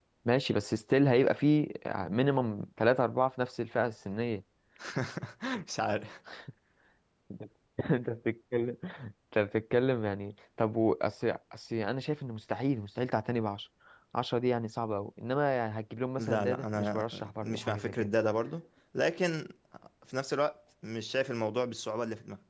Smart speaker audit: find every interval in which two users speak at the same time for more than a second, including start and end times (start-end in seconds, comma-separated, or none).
16.2-18.1